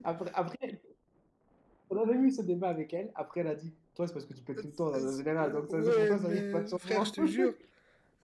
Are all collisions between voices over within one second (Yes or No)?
No